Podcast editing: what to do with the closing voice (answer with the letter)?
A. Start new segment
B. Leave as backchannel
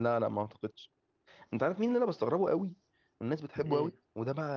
B